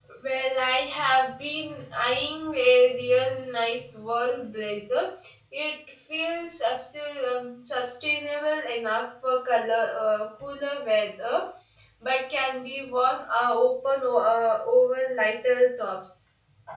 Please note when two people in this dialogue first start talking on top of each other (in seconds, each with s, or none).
none